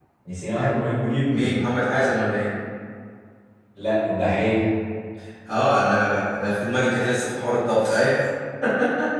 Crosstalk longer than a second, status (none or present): none